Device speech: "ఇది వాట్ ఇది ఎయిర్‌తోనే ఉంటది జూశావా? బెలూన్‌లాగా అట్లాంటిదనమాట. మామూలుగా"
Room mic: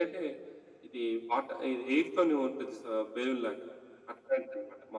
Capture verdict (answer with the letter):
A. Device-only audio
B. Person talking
A